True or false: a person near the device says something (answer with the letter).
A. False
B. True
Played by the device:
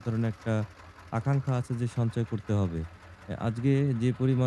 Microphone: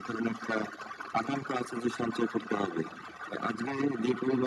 A